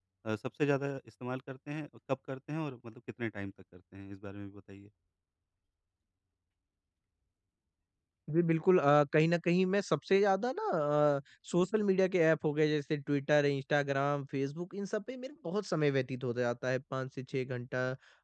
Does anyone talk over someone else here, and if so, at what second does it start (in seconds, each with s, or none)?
none